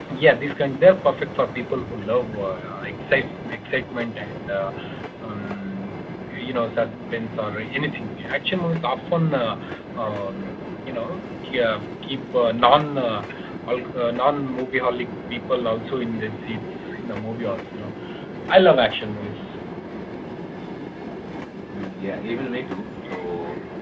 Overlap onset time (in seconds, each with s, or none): none